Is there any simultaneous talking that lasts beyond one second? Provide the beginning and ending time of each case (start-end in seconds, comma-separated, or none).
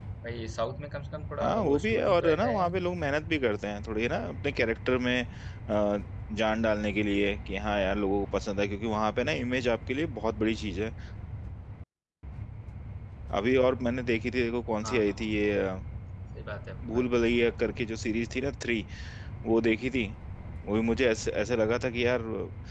1.4-2.7